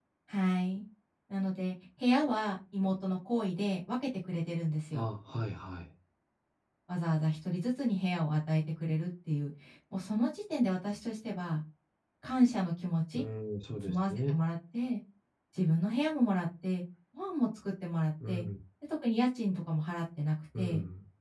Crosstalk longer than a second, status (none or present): none